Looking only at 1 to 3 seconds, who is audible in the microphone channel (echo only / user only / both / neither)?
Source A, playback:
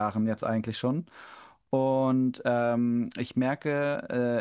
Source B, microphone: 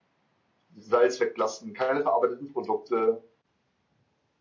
user only